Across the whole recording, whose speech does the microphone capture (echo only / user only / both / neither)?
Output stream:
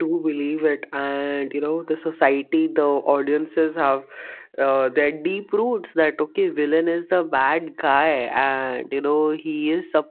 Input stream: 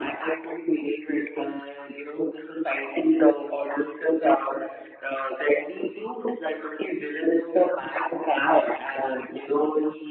echo only